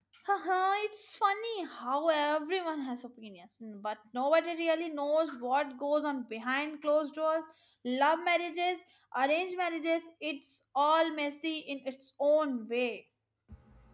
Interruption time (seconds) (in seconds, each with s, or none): none